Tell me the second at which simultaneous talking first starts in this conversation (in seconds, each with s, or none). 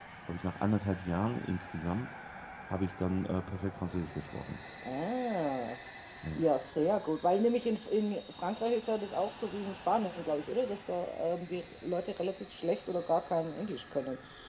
none